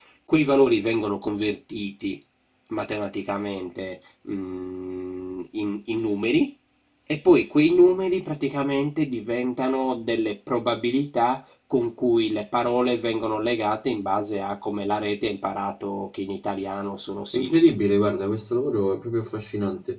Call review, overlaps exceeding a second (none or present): none